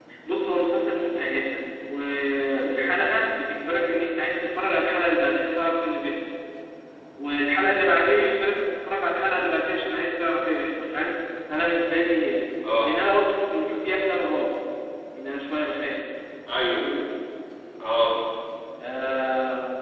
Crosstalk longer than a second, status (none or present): none